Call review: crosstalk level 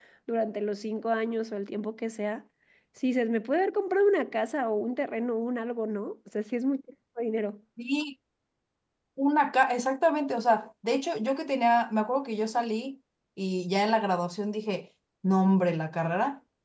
none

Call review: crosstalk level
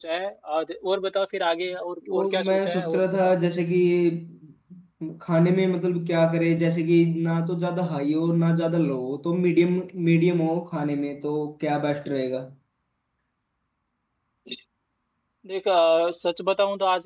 present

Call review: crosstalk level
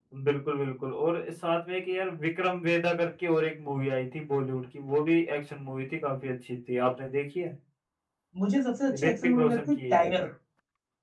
present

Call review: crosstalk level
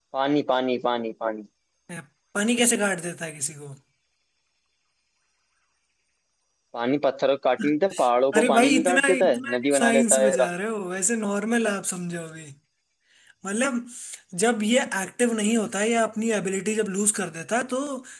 present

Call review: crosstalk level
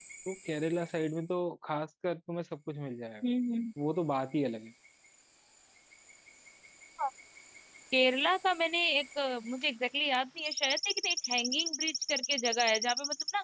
none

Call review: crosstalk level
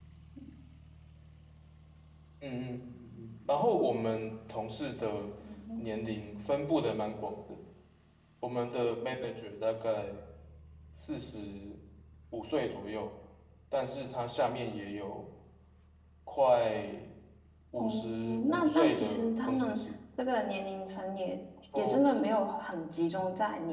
present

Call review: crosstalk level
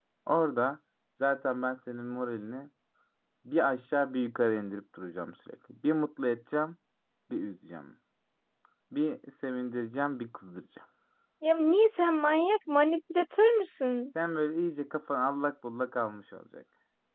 none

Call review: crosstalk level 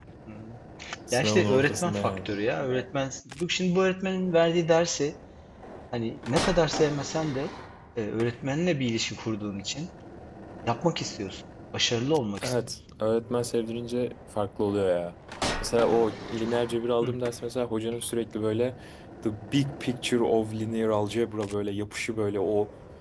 present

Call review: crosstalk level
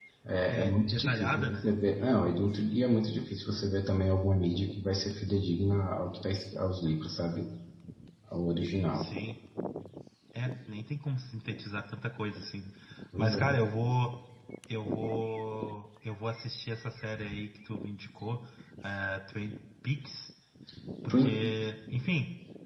present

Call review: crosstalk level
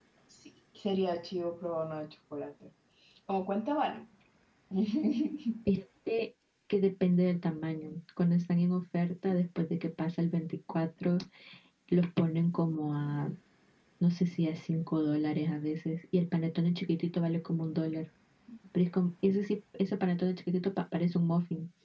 none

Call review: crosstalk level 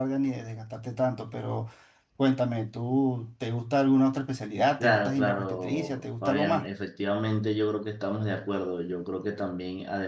present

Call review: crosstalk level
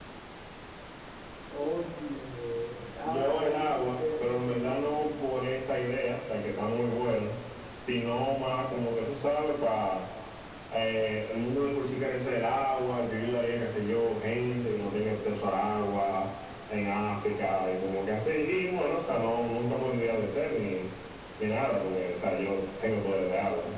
present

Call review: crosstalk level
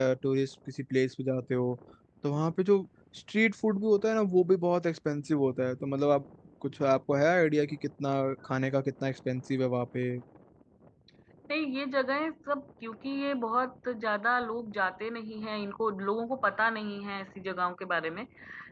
none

